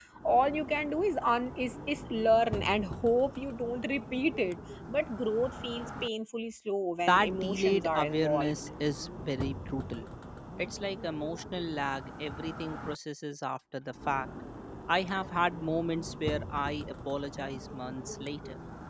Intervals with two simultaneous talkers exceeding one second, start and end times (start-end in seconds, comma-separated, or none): 7.1-8.6